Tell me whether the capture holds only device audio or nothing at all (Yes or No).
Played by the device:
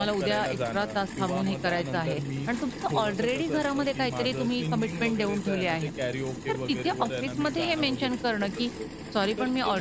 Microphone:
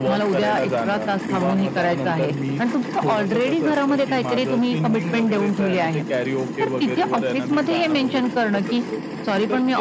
Yes